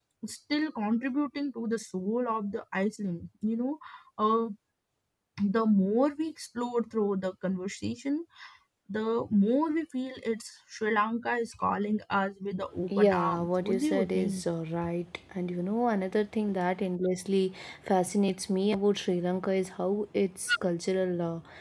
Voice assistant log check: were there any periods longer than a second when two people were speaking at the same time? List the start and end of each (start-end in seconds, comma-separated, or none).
12.9-14.4